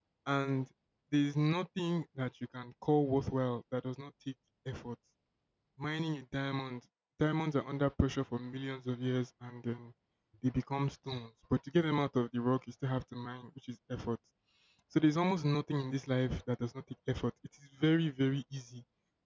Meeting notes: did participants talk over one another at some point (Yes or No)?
No